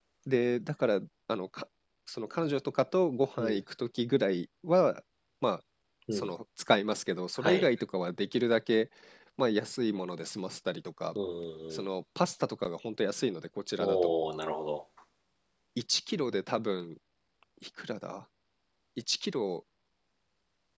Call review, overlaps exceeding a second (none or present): none